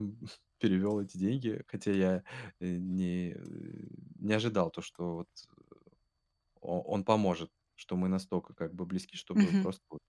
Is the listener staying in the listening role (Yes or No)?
Yes